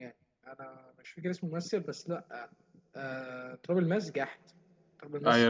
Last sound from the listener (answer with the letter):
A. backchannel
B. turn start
B